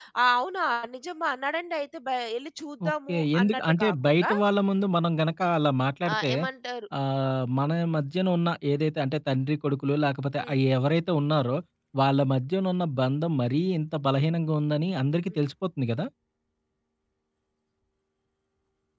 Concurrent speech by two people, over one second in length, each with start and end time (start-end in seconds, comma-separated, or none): 2.9-4.3